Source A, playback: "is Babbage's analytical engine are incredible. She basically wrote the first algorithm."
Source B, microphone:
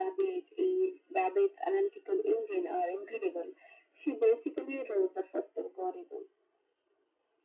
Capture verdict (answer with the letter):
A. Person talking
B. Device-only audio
B